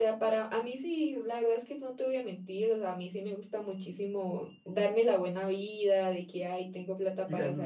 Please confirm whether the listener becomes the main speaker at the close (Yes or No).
No